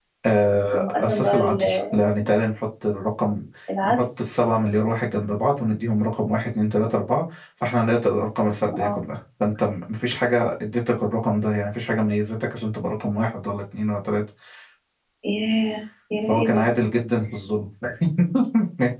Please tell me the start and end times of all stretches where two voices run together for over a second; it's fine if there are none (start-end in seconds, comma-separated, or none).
0.7-1.9